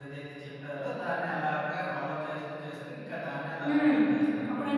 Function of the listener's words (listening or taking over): taking over